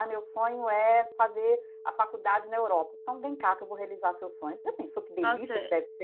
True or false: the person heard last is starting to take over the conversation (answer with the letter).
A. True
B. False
A